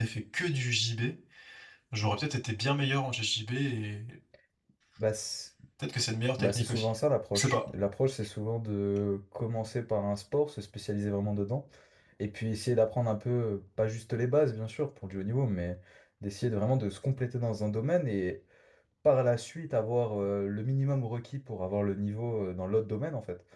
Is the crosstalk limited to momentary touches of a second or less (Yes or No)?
Yes